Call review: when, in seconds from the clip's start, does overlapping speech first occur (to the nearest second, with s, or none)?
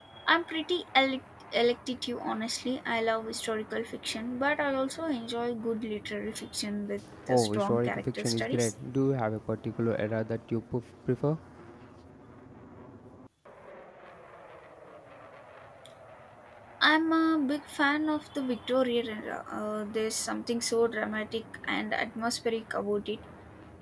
7 s